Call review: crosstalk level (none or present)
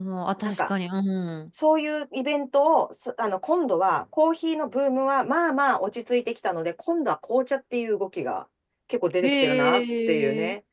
present